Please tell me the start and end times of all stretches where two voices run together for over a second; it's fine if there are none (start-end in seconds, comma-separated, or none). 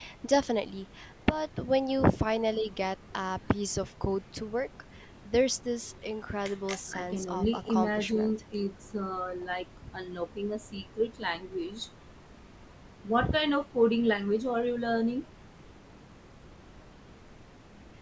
6.9-8.3